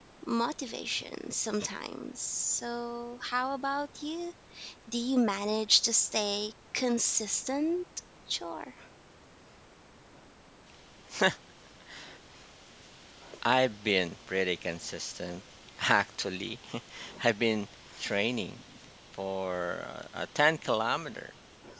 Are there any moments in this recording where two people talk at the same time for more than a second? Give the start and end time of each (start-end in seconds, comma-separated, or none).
none